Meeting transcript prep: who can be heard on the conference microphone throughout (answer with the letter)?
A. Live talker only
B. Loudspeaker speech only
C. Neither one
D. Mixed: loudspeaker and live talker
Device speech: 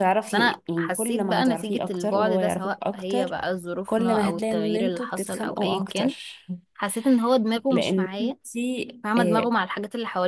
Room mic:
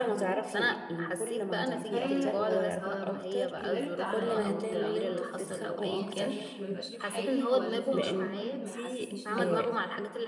D